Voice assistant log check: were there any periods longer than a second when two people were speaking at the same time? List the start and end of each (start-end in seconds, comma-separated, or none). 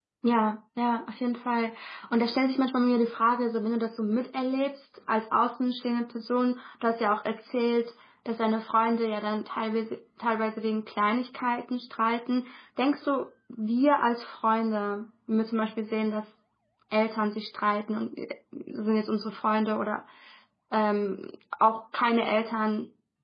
none